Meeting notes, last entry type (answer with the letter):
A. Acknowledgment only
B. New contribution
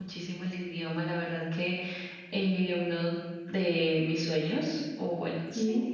A